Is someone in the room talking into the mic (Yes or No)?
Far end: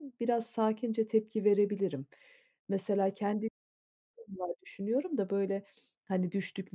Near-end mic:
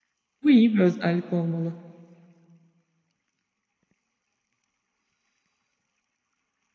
Yes